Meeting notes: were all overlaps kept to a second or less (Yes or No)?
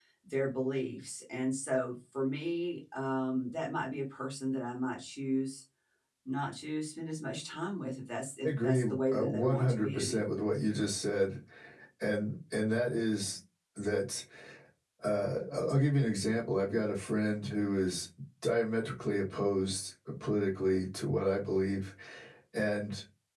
No